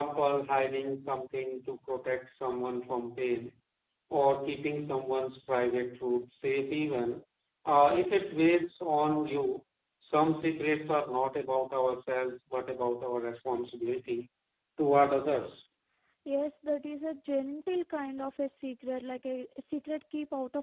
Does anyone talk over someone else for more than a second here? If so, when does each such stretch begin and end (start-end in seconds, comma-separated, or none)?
none